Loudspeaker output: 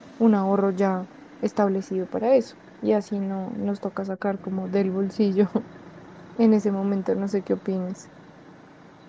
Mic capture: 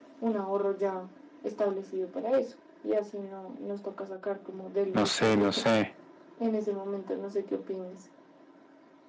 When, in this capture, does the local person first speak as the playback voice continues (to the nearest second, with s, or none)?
5 s